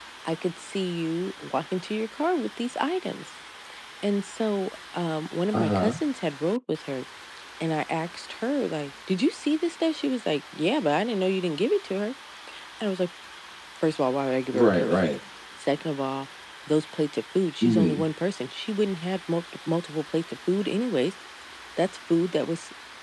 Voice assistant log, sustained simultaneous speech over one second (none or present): none